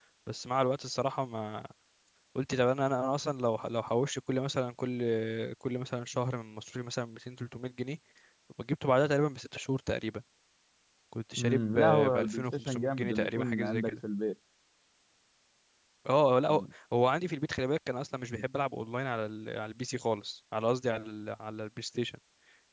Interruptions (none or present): present